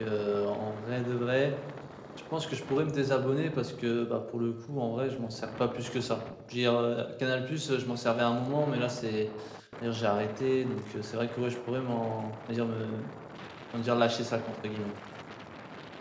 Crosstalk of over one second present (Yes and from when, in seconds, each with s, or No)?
No